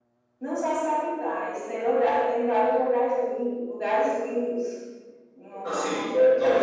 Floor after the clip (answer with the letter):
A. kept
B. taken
B